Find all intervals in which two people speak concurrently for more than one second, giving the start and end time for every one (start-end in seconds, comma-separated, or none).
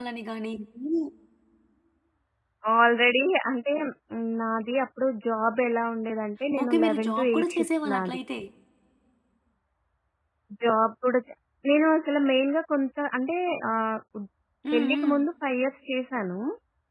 6.6-8.2